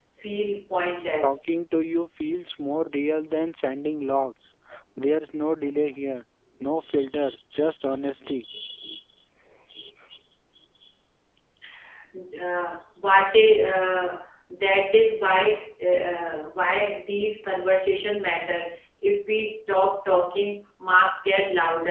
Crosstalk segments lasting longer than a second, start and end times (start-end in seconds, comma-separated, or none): none